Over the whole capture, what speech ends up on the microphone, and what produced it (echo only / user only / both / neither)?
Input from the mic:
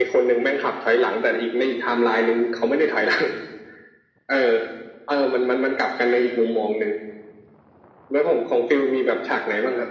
echo only